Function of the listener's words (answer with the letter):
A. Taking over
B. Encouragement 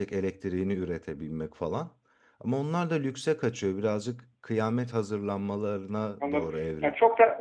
A